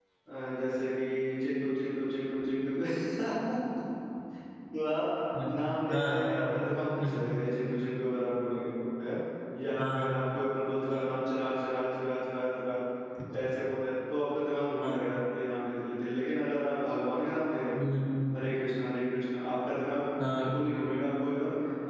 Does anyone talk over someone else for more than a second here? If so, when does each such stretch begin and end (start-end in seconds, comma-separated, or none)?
none